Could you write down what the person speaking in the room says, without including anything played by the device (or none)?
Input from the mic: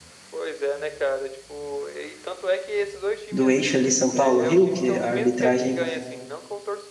do eixo ali São Paulo-Rio, que a arbitragem,